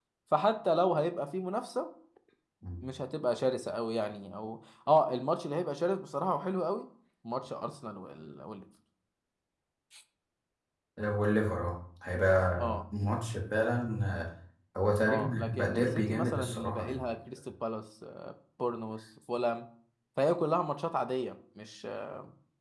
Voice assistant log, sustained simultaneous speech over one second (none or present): present